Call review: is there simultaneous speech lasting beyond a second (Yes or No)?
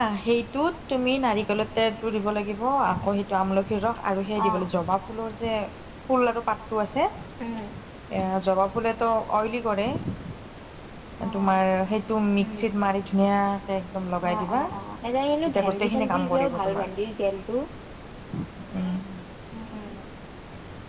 Yes